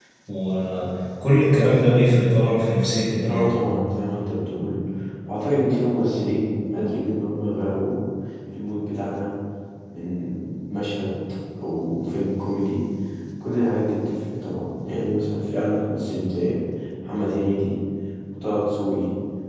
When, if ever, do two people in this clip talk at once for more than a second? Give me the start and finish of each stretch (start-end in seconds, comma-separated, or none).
none